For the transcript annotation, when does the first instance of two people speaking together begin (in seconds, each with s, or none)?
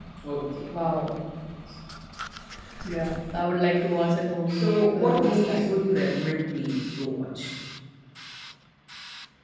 4.5 s